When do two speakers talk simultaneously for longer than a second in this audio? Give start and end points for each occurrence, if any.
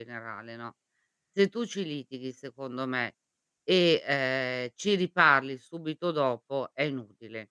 none

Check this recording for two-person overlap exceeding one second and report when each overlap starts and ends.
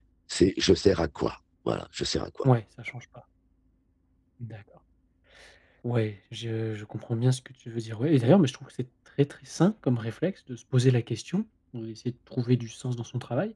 none

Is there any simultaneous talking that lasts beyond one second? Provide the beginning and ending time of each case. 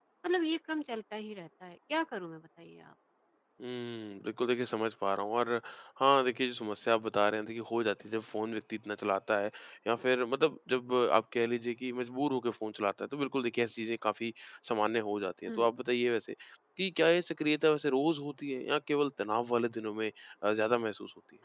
none

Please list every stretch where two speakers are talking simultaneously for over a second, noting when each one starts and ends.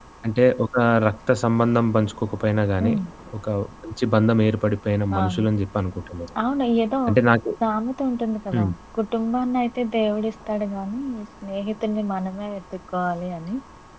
none

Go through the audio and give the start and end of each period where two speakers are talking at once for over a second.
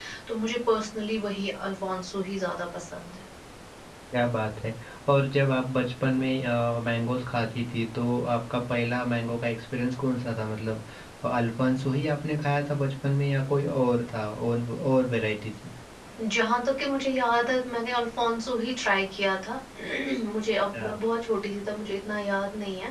none

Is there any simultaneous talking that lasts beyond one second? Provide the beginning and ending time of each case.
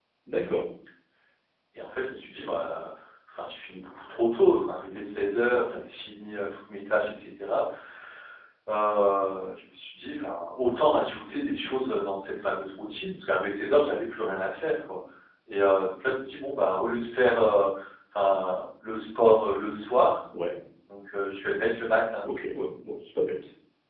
none

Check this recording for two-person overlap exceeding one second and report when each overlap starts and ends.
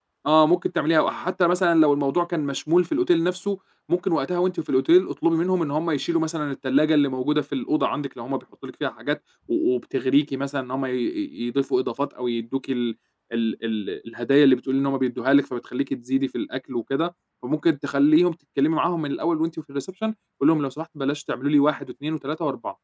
none

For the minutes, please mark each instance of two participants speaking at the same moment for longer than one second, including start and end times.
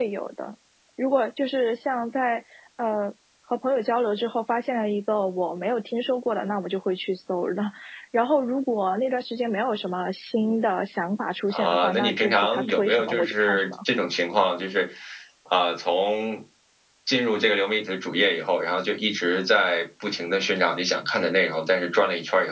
11.5-13.7

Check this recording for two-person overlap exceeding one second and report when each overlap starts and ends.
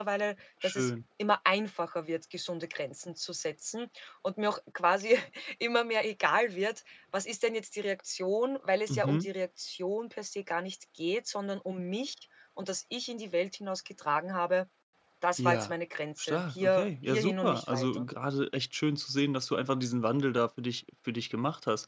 16.2-18.1

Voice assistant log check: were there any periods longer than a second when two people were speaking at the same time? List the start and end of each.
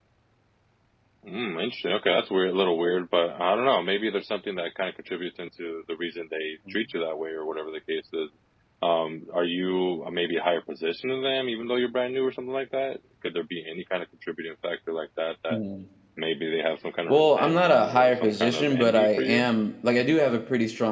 17.1-19.5

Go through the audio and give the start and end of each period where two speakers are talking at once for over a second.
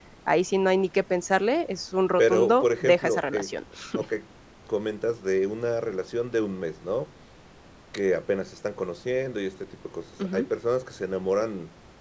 2.2-3.5

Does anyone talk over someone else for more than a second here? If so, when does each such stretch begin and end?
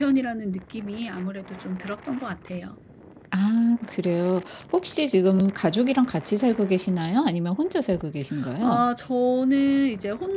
none

